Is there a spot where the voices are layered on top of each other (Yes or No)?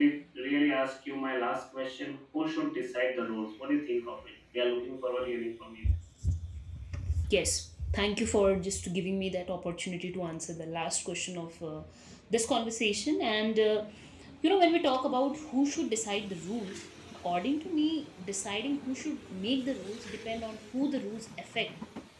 No